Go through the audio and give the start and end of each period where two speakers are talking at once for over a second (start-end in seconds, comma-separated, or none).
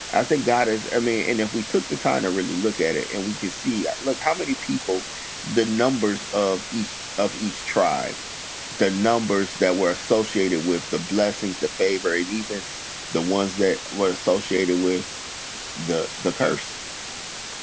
none